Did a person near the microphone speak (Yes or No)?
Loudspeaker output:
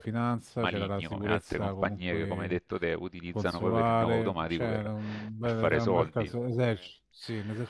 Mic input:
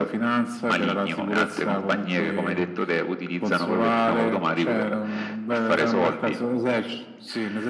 No